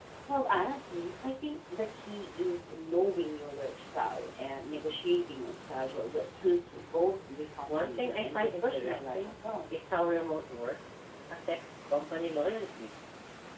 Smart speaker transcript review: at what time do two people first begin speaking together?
8 s

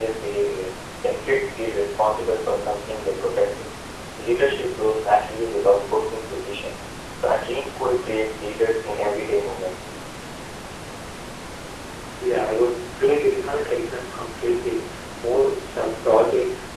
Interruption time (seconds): none

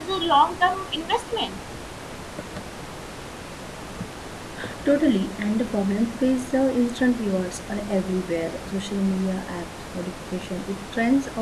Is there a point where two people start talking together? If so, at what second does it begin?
none

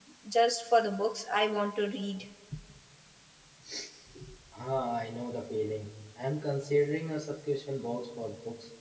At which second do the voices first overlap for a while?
none

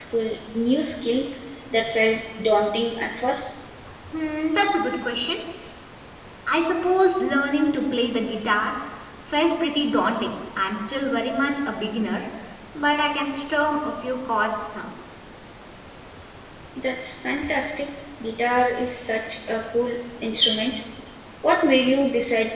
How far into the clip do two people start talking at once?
none

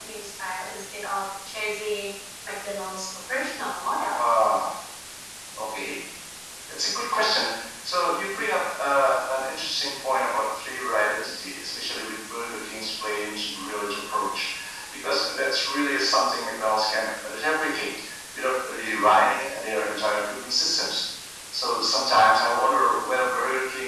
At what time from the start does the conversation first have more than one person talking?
none

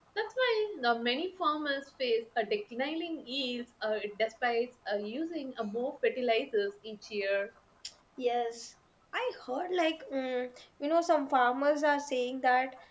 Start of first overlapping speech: none

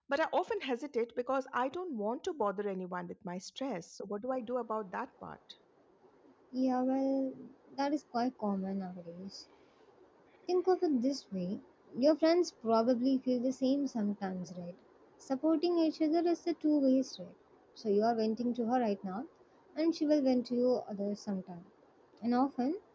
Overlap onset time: none

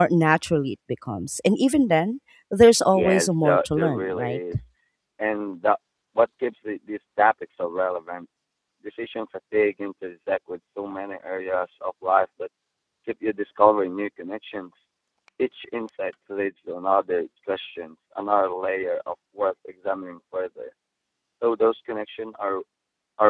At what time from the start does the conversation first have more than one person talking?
3 s

